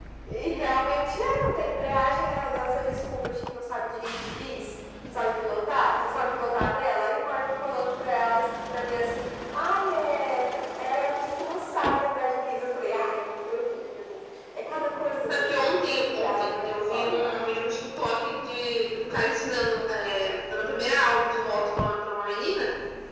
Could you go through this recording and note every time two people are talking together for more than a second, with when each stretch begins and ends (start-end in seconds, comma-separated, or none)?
15.3-17.5